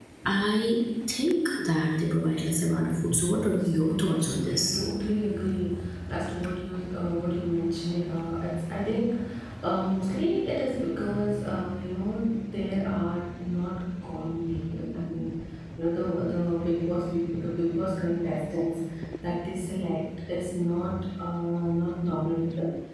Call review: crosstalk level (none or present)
present